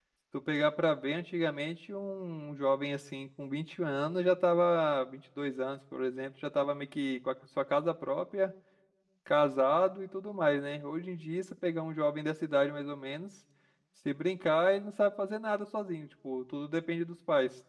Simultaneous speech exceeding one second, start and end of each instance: none

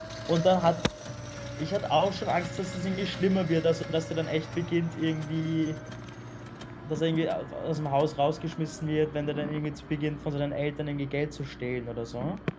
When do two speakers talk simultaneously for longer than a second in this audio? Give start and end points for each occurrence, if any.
none

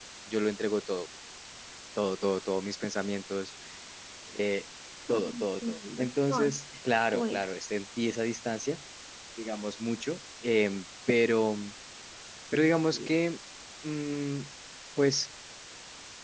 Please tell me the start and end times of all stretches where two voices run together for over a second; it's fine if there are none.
5.1-6.5

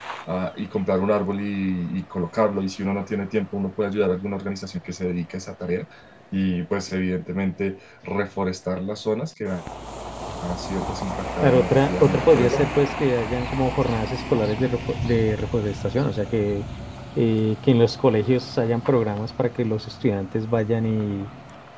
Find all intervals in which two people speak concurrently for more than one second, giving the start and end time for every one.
11.4-12.7

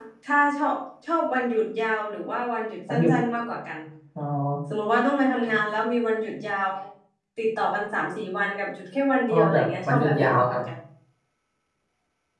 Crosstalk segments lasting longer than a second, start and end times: 9.3-10.6

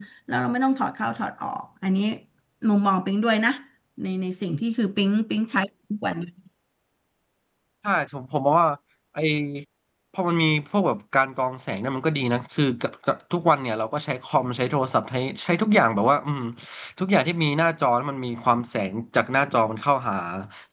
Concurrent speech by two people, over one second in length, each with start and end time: none

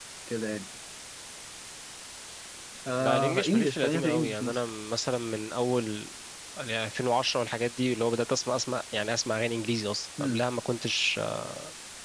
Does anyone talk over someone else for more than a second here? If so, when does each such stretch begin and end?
3.0-4.6

